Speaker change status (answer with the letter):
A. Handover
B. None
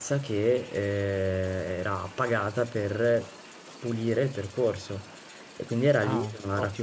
B